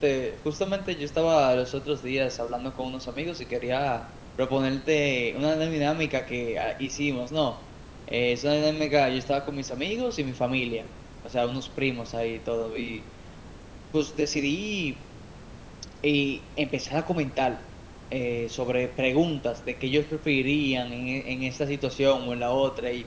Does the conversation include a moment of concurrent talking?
No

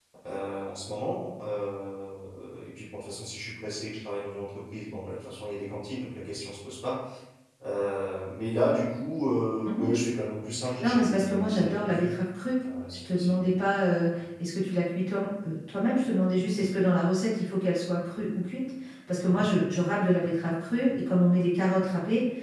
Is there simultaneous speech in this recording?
Yes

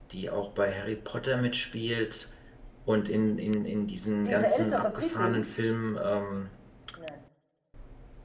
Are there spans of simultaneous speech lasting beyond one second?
Yes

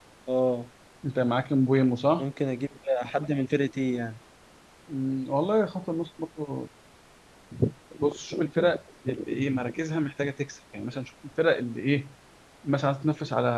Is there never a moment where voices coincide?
Yes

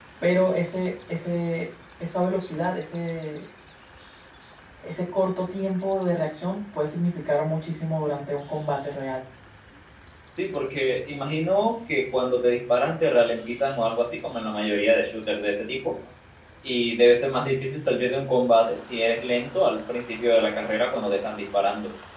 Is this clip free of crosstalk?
Yes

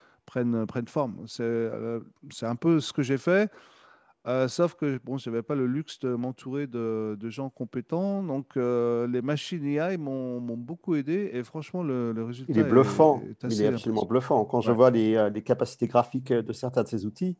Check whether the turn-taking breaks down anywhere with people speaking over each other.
Yes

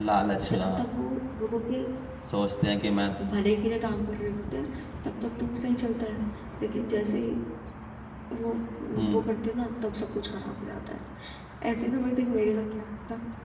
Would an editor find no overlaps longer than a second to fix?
Yes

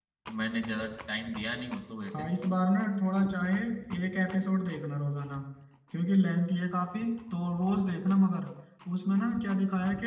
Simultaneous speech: No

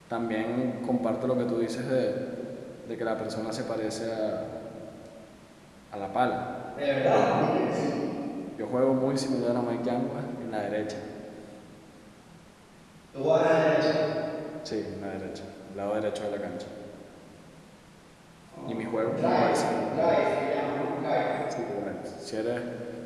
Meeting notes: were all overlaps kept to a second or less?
No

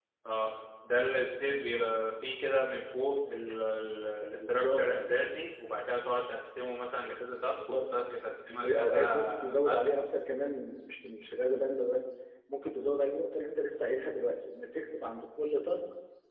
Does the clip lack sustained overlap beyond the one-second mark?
No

